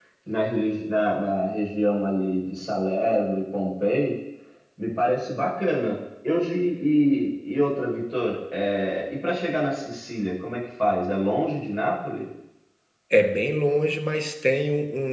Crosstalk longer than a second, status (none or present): none